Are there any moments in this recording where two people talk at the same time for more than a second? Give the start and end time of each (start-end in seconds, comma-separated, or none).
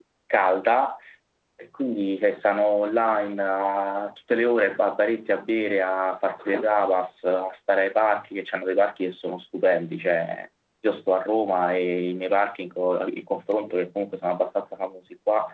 none